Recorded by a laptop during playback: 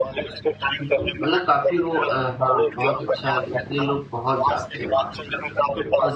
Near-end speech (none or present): present